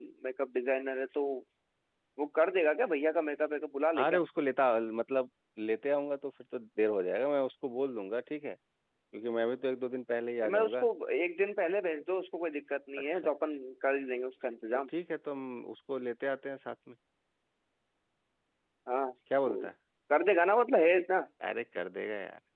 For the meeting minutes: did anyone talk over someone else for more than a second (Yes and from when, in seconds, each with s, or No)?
No